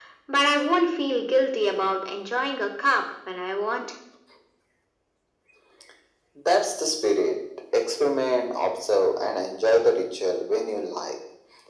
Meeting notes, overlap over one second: none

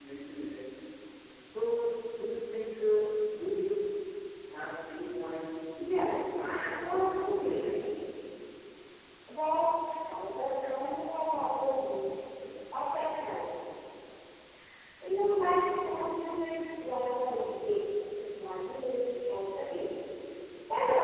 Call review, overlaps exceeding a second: present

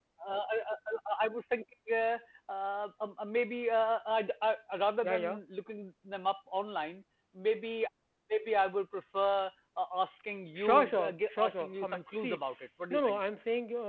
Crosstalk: present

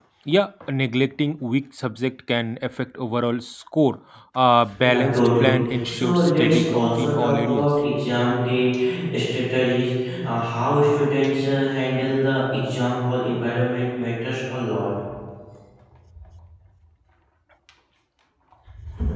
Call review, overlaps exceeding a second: present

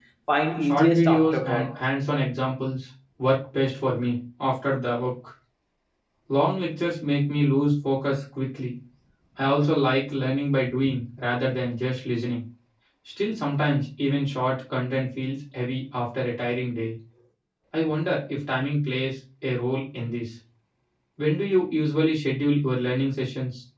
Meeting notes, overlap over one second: present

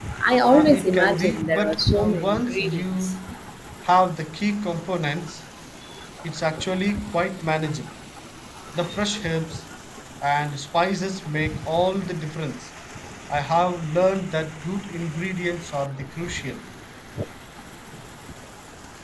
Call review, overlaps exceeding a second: present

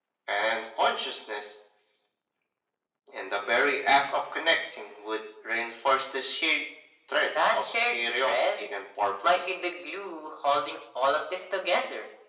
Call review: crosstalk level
present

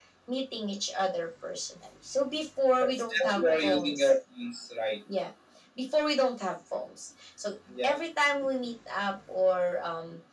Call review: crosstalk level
present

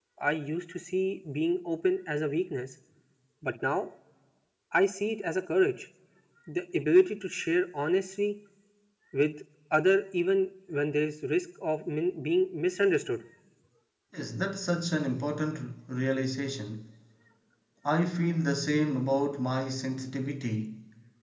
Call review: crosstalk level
none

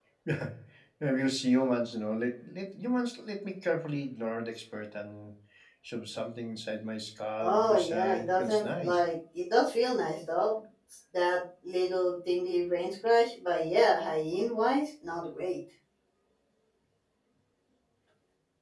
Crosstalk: present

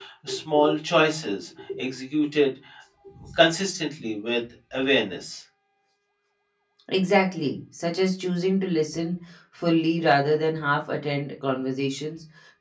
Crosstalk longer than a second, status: none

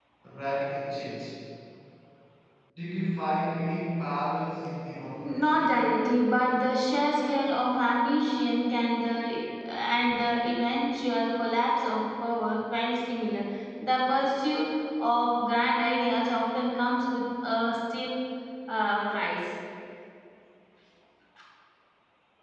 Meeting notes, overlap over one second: none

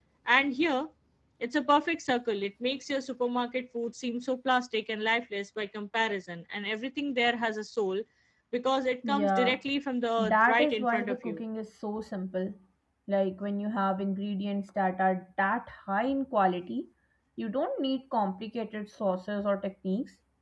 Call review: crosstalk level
present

